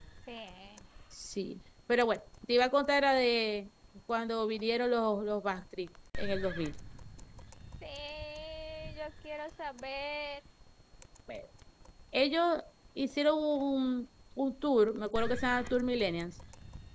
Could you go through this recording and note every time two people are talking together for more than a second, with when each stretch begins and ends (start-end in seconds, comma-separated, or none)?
none